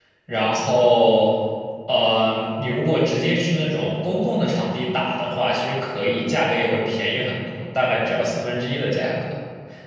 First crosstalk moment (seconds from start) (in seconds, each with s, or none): none